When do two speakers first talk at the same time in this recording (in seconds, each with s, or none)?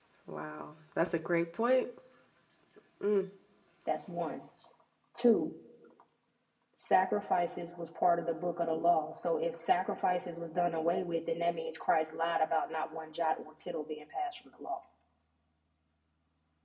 none